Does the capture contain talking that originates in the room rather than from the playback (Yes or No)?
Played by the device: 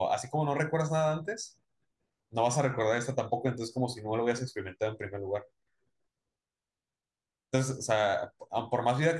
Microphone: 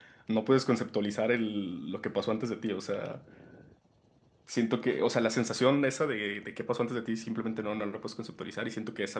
Yes